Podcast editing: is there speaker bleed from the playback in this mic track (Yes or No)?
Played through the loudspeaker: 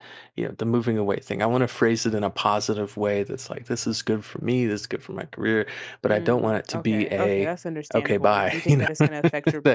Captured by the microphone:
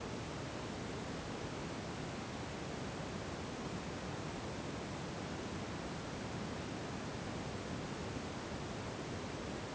No